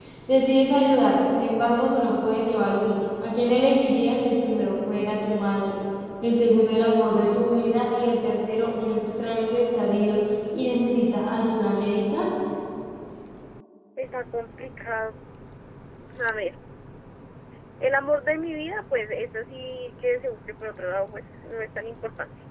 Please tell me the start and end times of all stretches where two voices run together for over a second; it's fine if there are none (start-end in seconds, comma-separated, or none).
none